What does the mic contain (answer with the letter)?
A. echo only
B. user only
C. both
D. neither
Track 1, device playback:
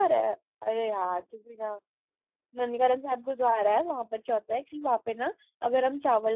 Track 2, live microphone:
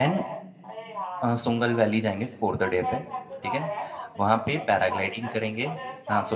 C